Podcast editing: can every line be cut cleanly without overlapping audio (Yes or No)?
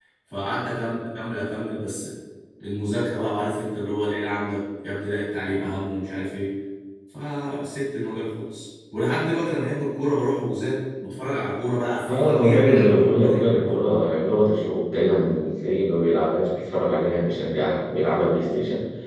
No